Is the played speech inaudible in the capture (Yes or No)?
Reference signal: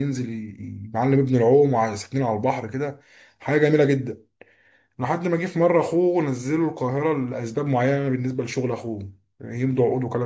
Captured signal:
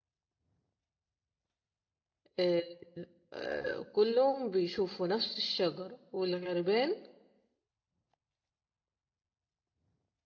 Yes